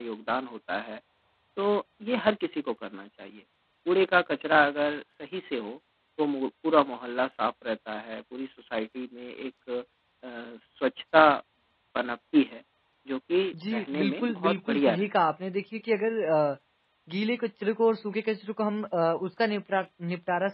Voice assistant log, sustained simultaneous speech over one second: present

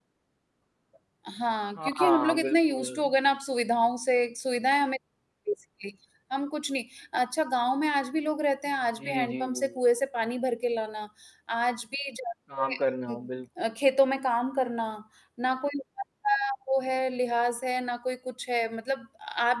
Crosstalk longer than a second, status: present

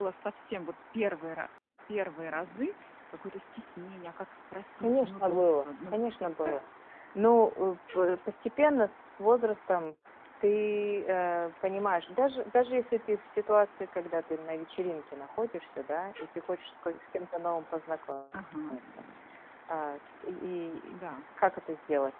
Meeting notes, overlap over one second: present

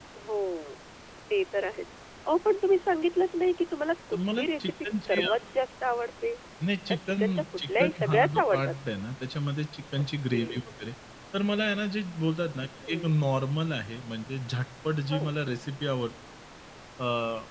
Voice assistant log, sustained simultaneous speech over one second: present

